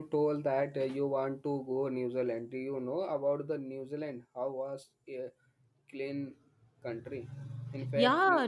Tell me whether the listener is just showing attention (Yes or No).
No